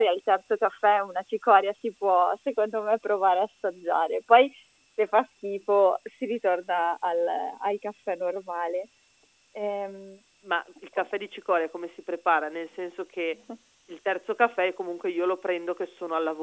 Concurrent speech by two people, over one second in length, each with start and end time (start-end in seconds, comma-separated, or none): none